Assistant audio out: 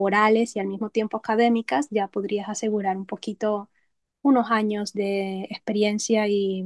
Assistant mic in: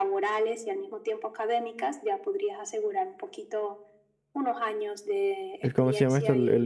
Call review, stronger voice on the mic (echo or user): user